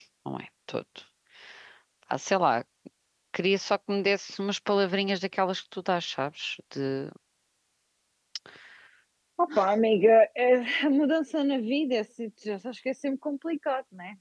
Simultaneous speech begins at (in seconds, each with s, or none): none